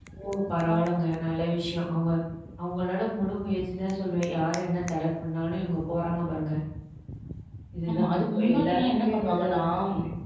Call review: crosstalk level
present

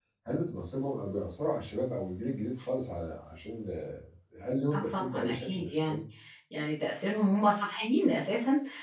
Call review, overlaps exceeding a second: present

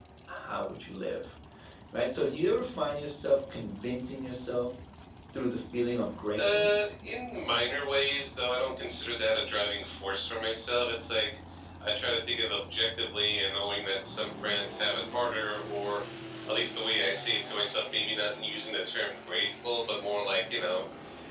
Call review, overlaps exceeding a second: none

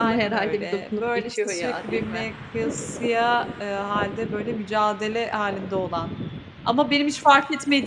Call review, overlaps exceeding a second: present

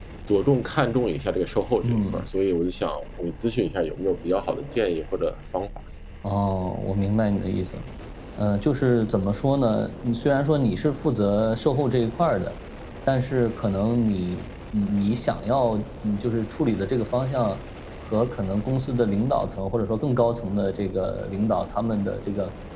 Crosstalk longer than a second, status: none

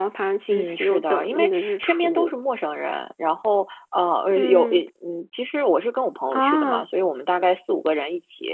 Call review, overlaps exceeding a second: present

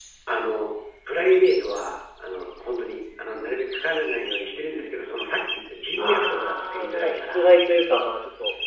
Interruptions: present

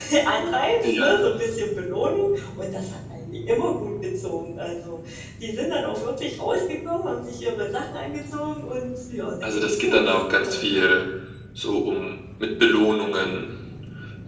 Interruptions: present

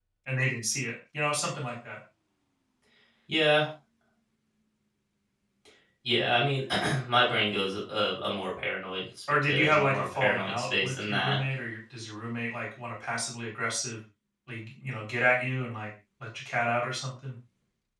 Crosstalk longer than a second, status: present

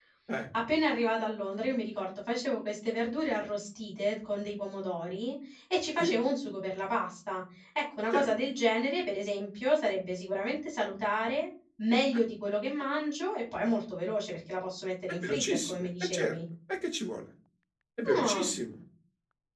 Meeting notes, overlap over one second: present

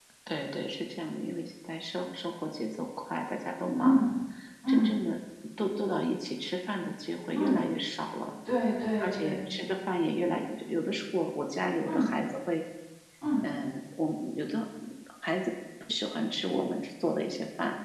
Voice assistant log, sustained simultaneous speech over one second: none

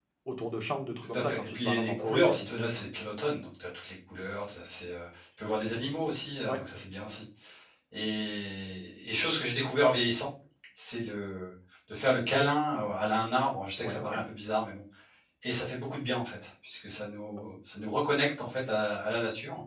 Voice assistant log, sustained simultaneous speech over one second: present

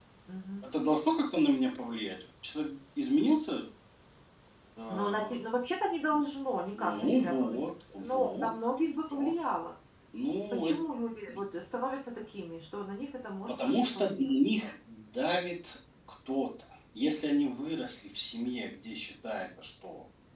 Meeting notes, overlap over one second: present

